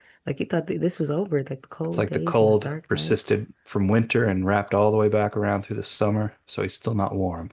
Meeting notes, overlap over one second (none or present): present